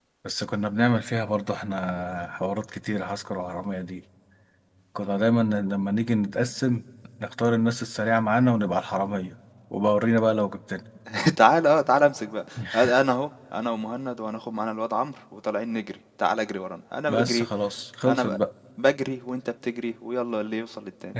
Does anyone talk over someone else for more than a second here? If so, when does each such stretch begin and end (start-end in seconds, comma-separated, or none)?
none